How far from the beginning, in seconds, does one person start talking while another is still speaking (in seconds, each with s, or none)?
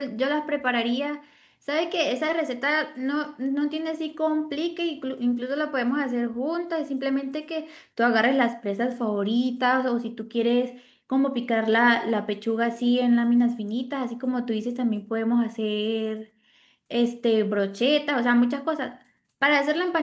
none